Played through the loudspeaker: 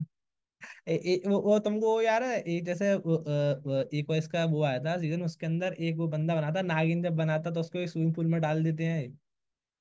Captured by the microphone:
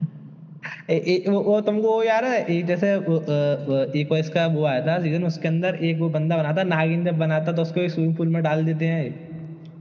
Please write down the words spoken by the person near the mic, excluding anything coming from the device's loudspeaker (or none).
none